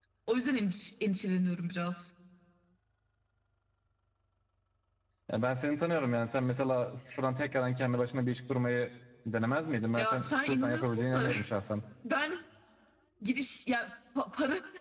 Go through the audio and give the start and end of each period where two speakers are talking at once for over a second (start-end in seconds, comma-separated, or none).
9.9-11.3